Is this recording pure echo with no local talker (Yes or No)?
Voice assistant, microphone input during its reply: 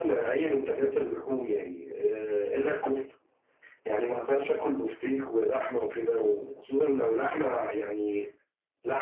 Yes